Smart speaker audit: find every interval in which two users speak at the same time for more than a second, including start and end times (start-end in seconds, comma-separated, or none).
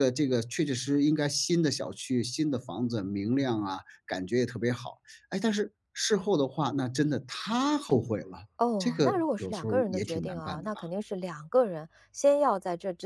8.8-10.7